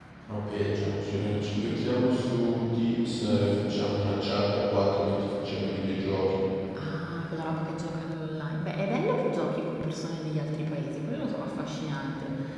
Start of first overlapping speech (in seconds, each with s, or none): none